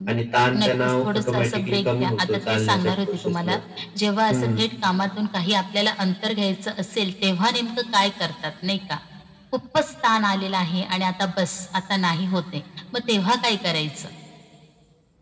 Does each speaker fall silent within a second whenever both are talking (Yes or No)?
No